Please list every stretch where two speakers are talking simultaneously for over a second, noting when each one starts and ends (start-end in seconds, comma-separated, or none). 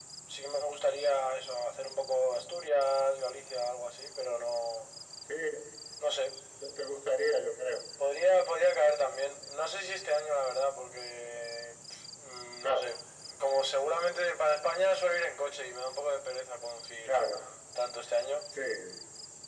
none